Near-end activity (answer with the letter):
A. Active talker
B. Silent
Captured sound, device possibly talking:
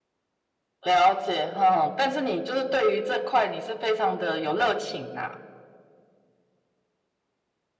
B